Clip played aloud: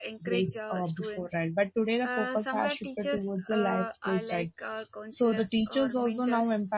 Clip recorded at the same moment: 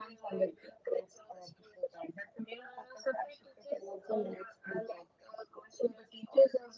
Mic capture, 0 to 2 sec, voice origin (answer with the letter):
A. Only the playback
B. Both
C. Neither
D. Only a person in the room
A